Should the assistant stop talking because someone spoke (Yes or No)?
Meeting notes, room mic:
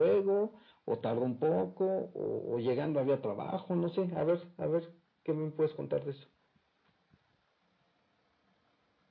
No